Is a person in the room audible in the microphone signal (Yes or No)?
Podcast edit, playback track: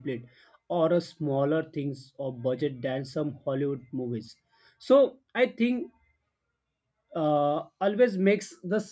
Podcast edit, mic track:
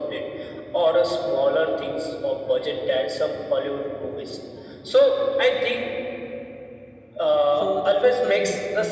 Yes